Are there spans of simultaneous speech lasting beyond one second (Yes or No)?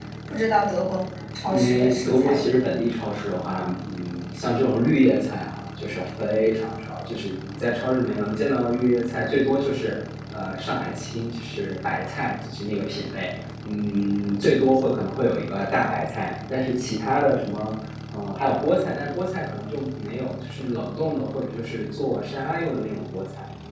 Yes